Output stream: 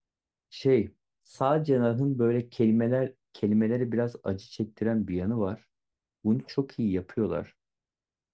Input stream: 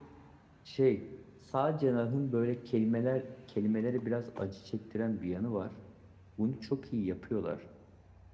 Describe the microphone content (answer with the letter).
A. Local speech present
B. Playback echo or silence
B